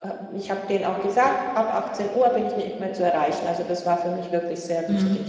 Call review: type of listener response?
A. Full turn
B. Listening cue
A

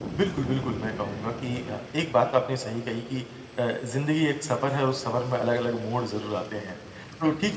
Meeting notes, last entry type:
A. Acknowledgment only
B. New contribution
A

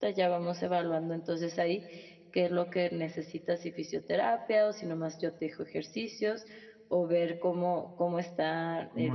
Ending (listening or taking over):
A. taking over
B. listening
A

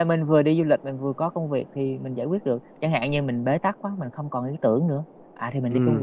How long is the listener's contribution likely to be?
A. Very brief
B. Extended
B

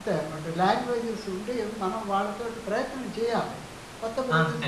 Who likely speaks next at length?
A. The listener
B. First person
B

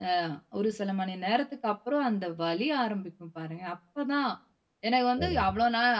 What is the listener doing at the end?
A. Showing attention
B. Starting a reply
A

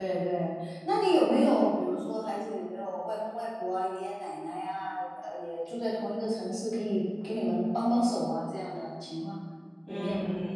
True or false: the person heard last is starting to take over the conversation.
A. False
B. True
B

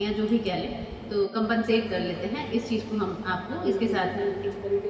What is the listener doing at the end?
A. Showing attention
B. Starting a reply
B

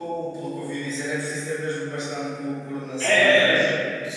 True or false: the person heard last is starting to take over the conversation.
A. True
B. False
A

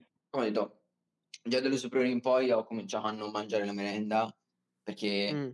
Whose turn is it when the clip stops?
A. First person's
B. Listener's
A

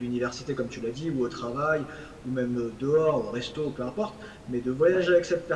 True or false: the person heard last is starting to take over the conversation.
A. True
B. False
B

